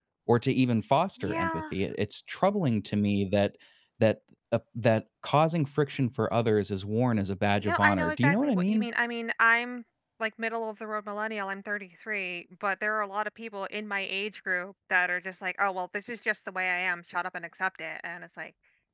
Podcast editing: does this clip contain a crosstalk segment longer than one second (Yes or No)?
Yes